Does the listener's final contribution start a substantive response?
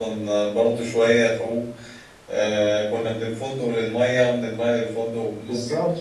Yes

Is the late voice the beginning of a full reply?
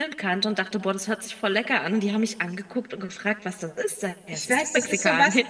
Yes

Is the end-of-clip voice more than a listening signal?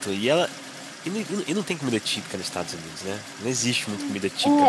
Yes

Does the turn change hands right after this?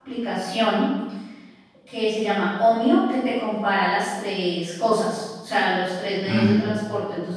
No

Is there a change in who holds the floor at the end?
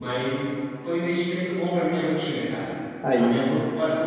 No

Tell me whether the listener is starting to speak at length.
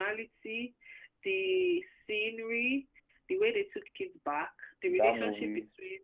No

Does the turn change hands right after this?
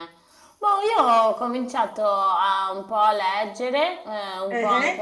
No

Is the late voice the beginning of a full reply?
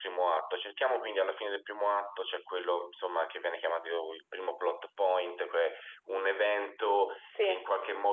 No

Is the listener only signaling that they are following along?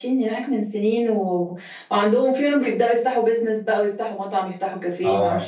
No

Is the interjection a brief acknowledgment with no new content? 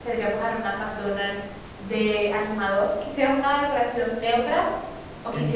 No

